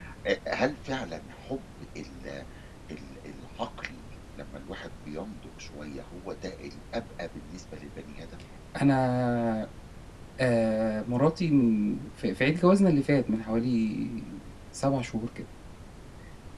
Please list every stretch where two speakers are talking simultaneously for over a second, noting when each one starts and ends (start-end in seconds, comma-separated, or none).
none